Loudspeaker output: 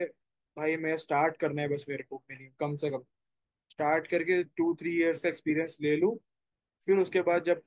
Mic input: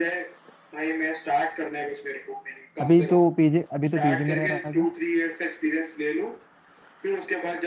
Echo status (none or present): present